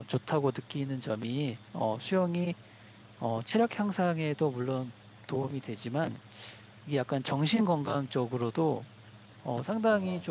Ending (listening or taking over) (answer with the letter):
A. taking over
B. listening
B